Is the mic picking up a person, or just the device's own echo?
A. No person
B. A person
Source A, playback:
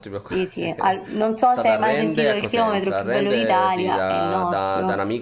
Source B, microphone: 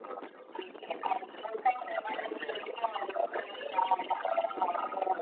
A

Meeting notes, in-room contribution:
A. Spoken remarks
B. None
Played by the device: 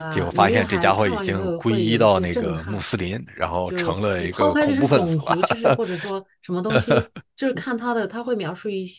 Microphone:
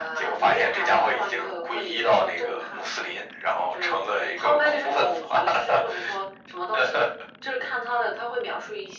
B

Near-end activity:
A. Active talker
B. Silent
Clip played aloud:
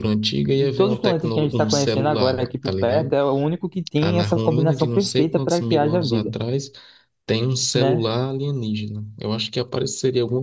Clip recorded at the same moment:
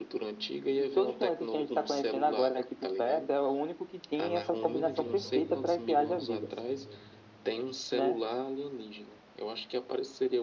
A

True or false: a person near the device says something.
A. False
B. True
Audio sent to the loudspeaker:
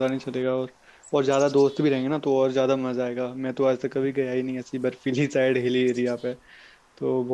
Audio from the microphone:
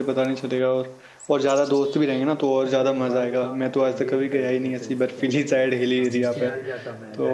B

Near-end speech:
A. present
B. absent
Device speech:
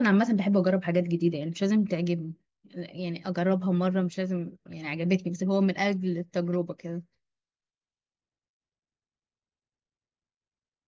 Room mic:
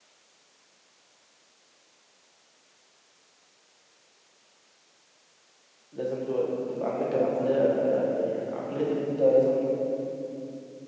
A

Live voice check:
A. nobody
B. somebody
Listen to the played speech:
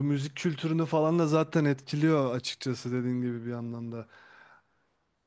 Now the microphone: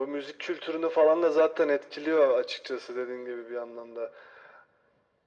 A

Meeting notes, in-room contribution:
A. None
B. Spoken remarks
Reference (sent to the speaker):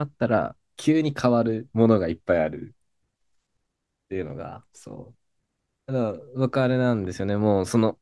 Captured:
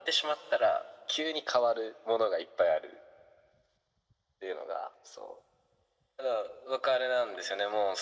A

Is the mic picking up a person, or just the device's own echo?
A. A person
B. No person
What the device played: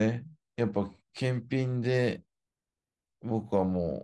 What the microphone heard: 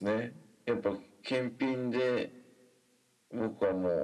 B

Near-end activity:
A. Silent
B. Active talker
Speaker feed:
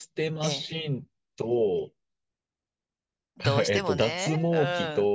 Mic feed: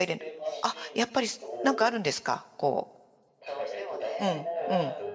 B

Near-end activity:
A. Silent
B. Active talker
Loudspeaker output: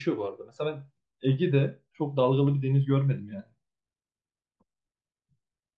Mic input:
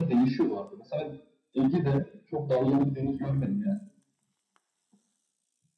A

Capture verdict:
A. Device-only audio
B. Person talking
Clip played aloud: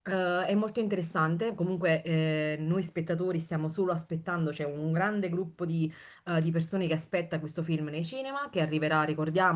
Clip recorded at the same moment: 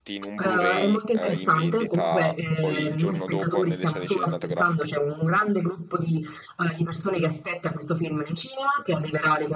B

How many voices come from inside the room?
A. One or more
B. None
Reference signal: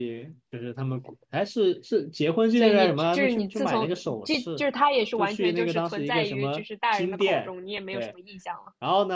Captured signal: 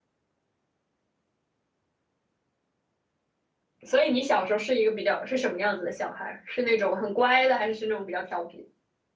A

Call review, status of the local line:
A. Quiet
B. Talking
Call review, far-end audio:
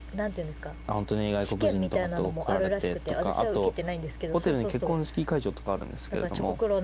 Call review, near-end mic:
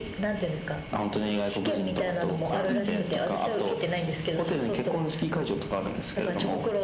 B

